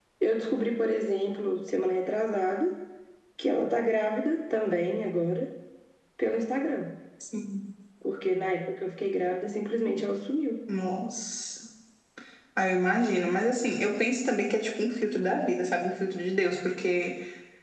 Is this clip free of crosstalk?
Yes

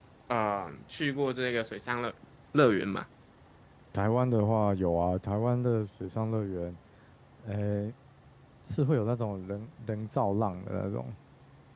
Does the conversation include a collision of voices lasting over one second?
No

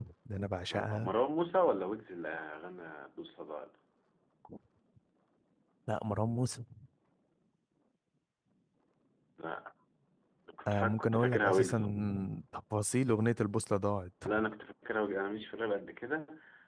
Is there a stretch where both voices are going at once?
Yes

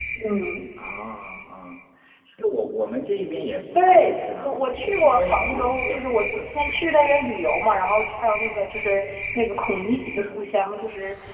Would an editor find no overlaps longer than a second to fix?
No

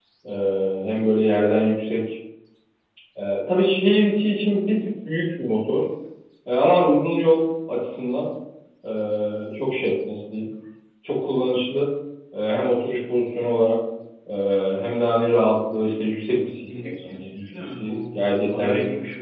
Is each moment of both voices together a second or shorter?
No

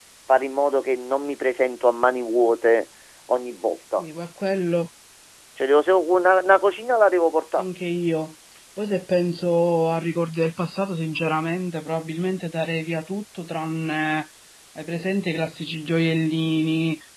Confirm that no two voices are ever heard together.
Yes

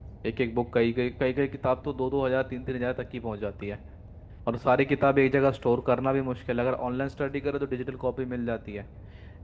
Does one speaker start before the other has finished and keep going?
No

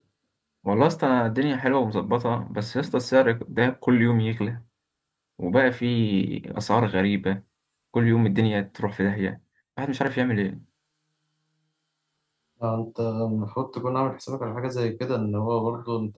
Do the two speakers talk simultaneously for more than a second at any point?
No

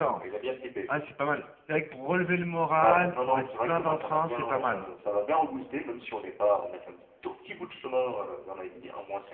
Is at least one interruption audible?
Yes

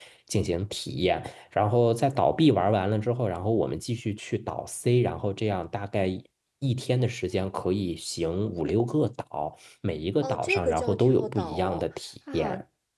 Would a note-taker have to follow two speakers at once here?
Yes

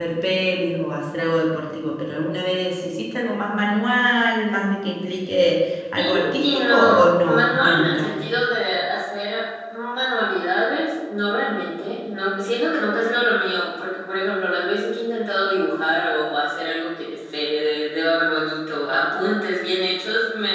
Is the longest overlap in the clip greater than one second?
Yes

